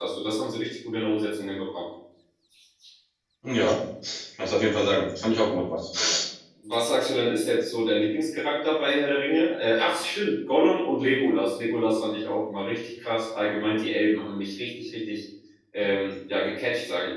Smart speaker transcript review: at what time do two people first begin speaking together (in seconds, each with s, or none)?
none